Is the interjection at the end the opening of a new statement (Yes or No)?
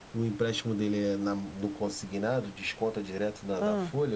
No